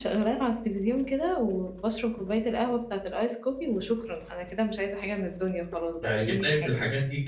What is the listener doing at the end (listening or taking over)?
taking over